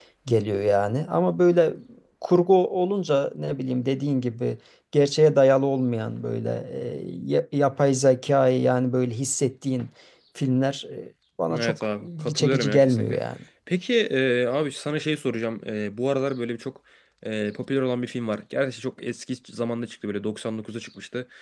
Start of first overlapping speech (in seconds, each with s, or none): 11.5 s